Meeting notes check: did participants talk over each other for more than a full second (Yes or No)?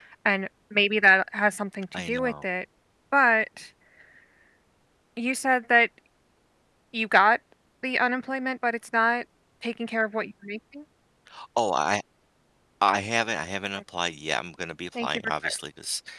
No